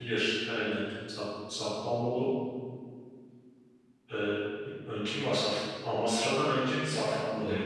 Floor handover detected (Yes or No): Yes